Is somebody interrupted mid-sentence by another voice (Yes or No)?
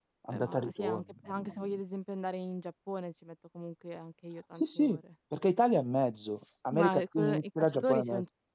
Yes